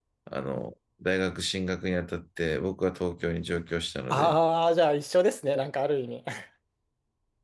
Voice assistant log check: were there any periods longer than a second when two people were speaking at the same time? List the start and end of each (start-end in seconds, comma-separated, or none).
none